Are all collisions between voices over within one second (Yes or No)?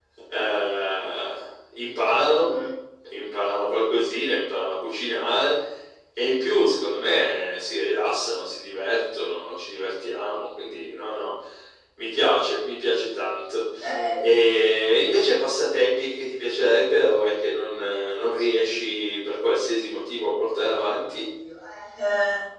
Yes